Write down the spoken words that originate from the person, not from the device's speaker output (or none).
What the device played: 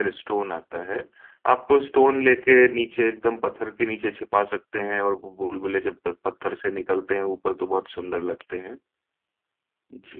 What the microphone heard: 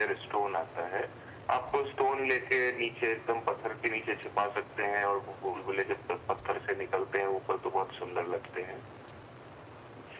none